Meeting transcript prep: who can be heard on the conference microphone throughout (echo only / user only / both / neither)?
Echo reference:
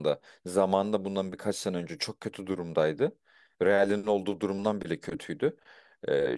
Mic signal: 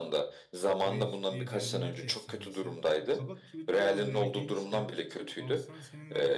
both